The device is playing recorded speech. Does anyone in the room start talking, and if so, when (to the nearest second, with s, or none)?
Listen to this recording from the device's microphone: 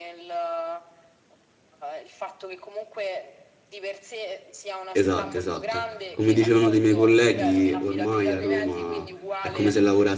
5 s